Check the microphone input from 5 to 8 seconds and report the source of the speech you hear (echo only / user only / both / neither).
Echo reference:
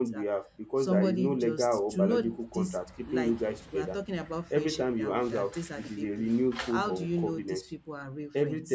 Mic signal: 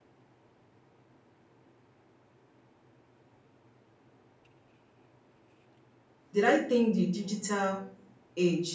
user only